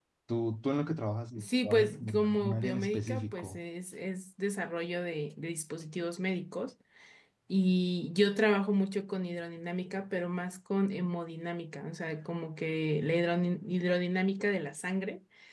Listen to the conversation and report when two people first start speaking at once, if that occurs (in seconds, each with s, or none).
1.4 s